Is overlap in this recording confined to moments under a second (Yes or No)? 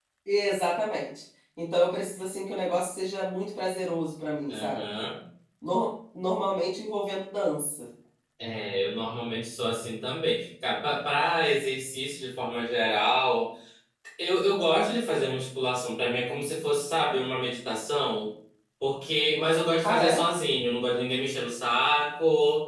Yes